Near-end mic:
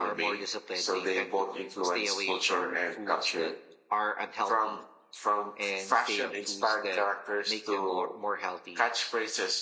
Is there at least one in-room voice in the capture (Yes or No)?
No